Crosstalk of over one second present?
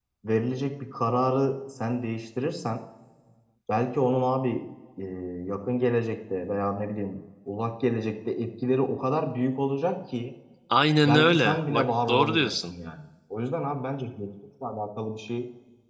Yes, from 11.0 s

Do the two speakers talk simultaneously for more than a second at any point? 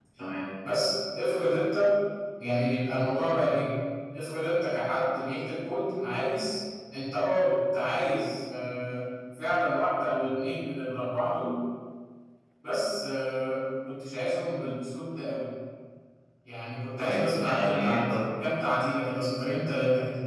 Yes, from 17.0 s

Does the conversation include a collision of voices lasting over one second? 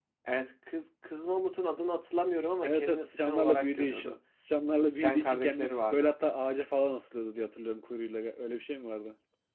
Yes, from 2.6 s

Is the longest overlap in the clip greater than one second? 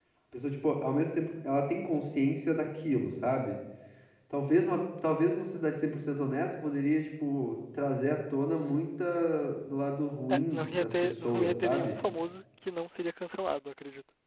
Yes, from 10.3 s

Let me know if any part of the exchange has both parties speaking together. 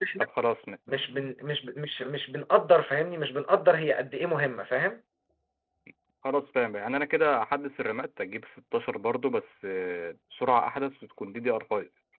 No

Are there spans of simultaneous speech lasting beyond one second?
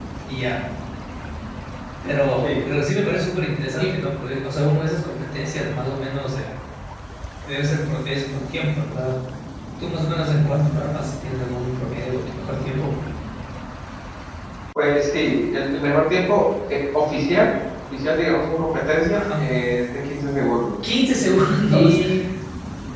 No

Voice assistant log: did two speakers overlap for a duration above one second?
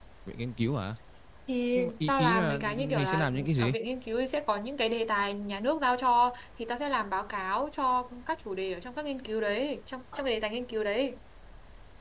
Yes, from 1.8 s

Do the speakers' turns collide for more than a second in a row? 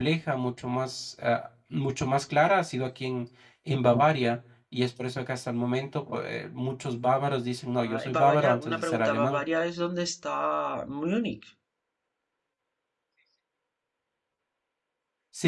Yes, from 7.9 s

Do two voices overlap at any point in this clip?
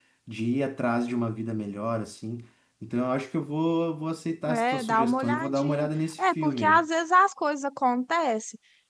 Yes, from 4.5 s

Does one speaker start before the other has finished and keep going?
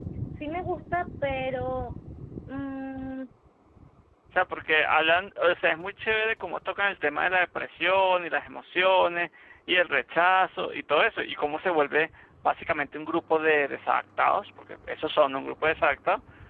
No

